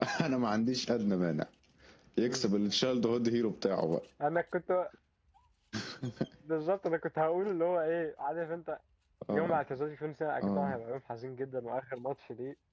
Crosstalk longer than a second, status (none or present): none